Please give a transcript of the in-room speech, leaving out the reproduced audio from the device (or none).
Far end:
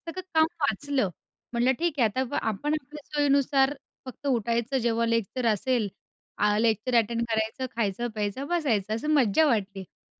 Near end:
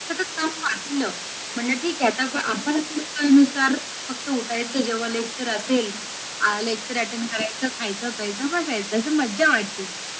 none